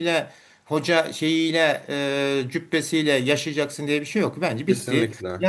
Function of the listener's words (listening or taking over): listening